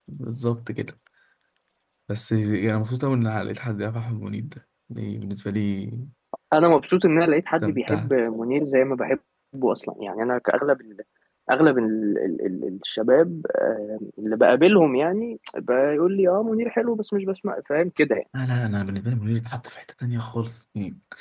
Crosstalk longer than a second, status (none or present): none